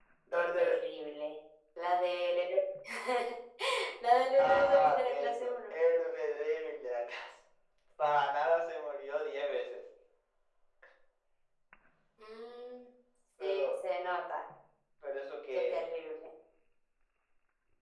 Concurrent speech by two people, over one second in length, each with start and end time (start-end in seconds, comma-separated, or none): 4.4-5.8